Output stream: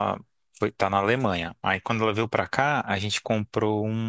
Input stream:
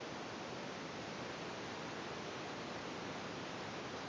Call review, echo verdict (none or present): none